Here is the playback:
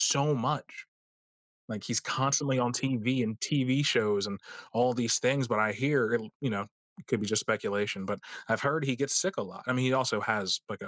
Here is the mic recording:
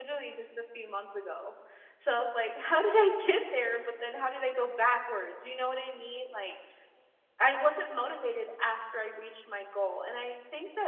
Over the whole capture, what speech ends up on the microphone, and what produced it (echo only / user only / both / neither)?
user only